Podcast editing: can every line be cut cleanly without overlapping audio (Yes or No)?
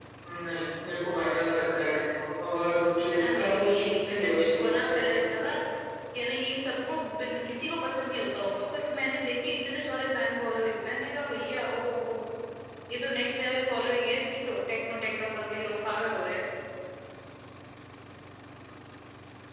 No